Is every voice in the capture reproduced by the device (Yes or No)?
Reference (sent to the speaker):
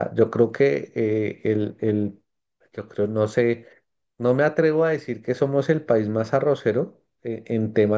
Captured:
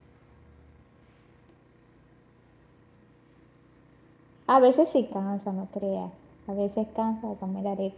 No